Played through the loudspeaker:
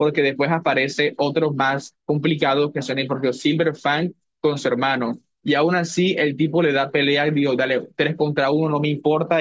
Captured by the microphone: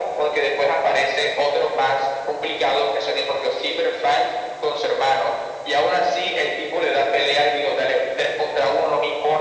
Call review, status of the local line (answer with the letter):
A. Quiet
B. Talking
A